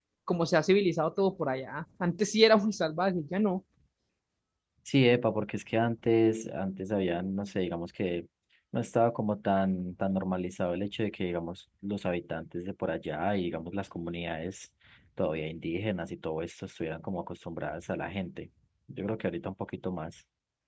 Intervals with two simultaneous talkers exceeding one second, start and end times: none

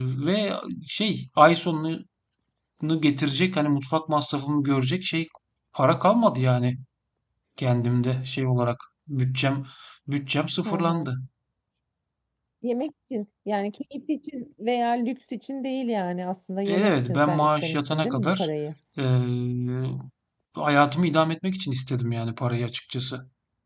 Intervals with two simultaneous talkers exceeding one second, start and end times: 16.6-18.5

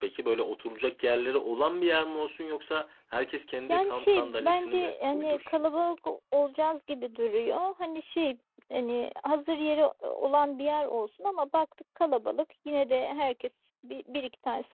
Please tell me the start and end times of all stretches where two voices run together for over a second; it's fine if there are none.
3.7-5.6

